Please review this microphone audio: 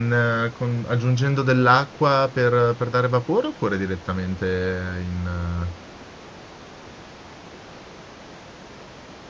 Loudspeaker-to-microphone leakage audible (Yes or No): No